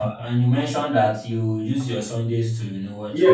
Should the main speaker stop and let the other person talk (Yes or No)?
Yes